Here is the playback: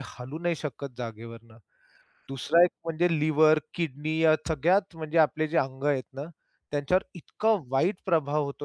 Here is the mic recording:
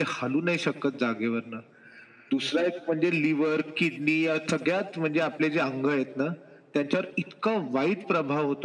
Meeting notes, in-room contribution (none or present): none